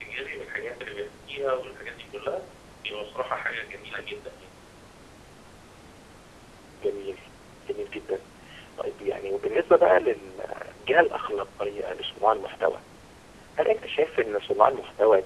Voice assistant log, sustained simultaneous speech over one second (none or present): none